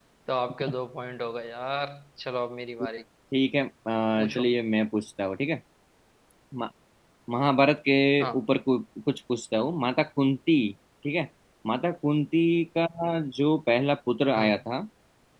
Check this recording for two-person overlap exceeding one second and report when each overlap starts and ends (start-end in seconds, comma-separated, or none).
none